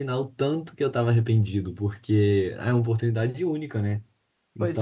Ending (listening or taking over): taking over